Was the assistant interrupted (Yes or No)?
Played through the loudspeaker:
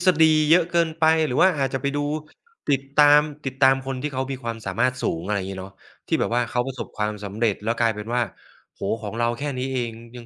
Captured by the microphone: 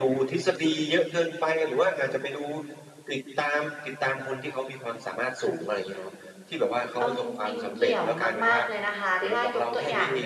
Yes